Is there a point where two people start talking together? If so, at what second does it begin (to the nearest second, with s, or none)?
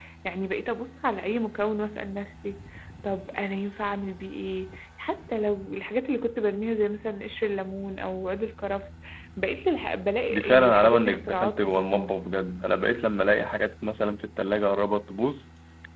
10 s